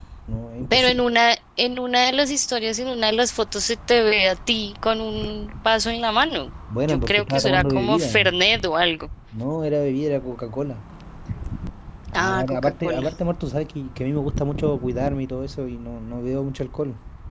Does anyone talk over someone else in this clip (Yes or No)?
Yes